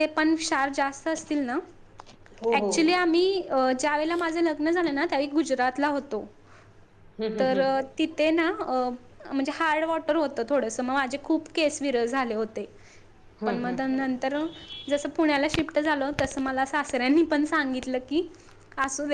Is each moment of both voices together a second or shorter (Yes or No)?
Yes